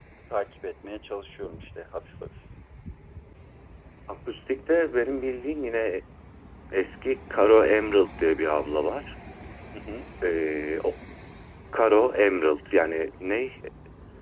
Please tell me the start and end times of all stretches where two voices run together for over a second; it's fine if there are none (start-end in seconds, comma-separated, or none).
none